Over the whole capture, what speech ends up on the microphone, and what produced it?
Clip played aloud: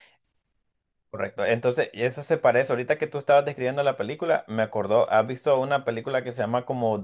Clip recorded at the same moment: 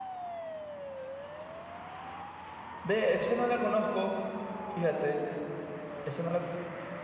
user only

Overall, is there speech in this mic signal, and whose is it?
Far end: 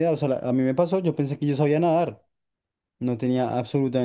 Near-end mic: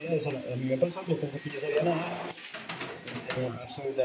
echo only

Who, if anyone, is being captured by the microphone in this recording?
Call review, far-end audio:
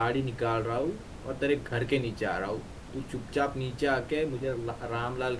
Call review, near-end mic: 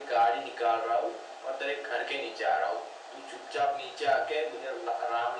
echo only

